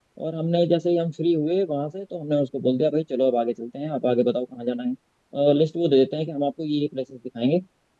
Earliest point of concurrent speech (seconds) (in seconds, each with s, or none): none